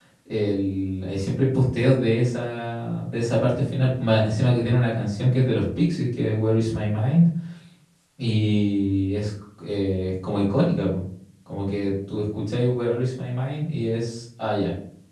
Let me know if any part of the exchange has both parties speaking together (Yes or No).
No